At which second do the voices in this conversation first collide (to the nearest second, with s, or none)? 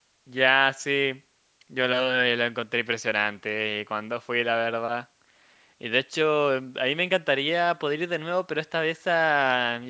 none